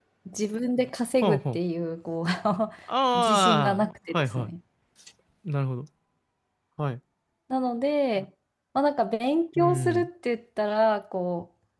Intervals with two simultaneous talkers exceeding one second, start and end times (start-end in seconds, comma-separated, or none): 3.2-4.5